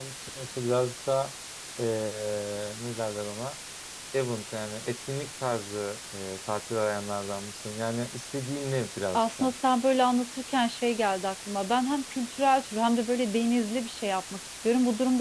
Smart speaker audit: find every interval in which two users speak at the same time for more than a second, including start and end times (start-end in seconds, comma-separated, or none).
none